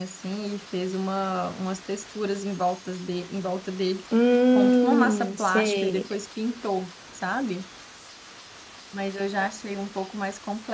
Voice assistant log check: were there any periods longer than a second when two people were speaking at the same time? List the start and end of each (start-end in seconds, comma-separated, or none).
4.5-6.2